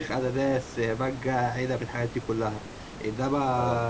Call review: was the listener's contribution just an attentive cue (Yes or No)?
Yes